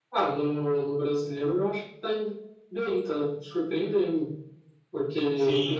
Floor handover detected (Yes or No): No